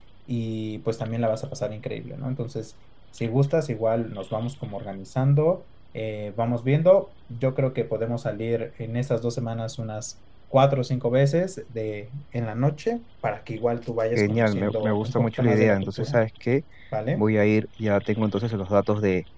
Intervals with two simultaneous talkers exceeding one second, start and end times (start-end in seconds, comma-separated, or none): 14.2-16.2